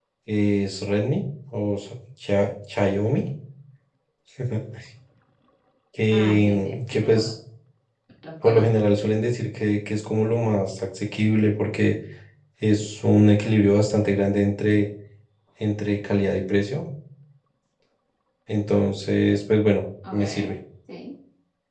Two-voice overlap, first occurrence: 6.1 s

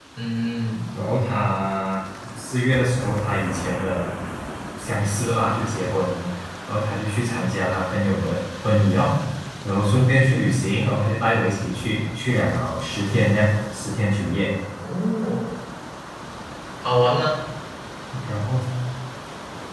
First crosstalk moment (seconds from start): none

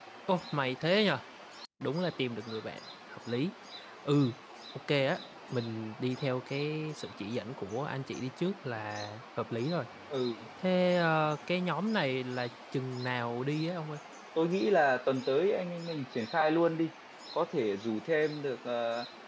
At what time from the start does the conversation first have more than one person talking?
none

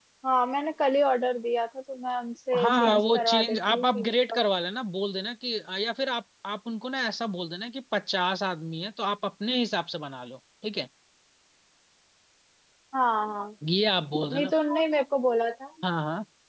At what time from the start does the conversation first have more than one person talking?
2.5 s

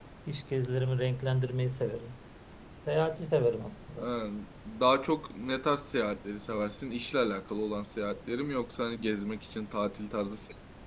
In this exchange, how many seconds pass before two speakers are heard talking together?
none

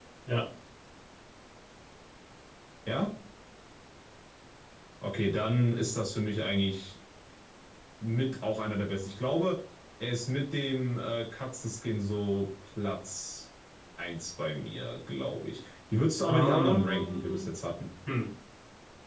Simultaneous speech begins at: 16.2 s

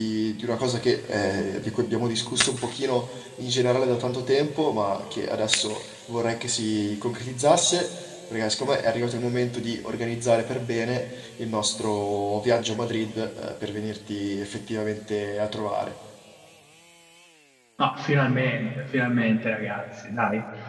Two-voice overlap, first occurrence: none

